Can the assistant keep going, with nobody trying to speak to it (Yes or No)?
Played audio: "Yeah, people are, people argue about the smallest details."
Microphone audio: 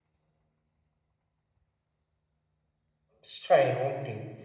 No